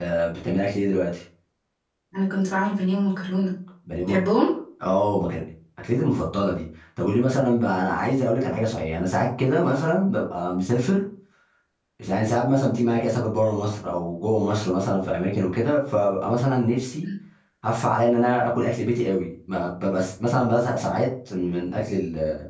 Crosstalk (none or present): none